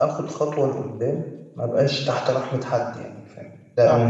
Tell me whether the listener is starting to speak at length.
Yes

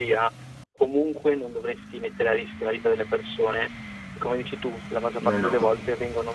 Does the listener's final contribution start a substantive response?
No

